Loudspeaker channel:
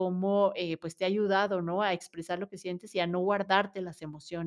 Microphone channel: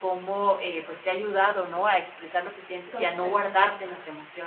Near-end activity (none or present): present